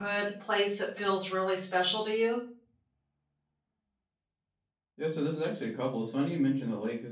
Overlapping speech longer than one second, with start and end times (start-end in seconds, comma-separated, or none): none